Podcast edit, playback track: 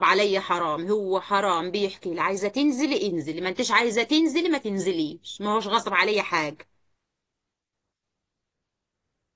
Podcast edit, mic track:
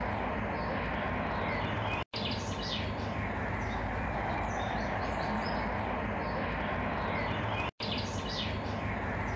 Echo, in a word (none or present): none